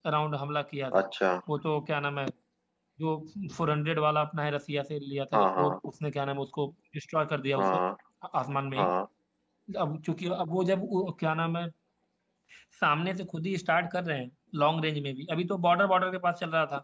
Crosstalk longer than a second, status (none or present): none